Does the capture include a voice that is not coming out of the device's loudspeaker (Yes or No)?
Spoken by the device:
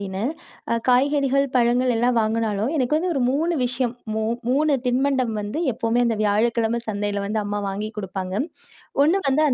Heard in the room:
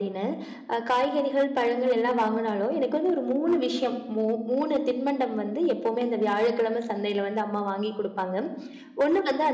No